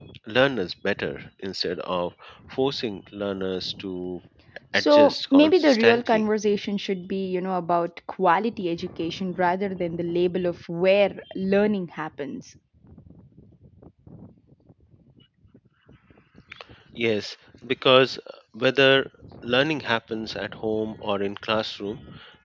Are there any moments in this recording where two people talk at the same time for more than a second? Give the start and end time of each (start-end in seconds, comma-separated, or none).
4.7-6.2